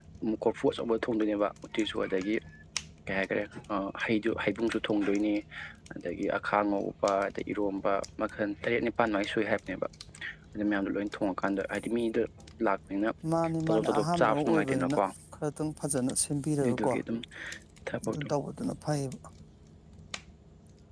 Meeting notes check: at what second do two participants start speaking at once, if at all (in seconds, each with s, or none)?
13.7 s